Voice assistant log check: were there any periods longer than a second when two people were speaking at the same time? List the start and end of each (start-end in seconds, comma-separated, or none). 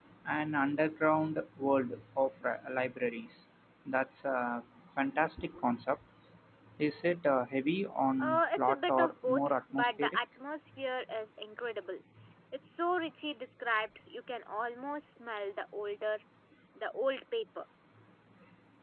8.2-10.2